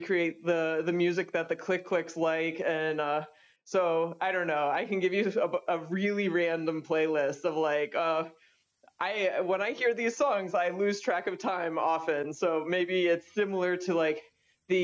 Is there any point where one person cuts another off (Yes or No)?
No